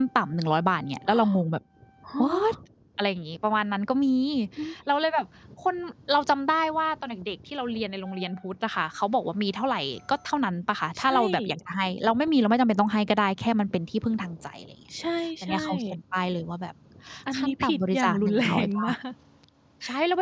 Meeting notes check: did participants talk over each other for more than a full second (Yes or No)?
Yes